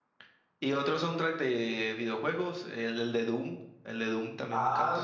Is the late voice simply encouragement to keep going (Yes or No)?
No